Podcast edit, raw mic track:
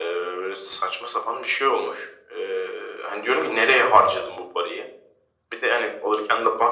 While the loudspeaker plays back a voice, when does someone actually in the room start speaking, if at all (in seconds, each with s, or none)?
none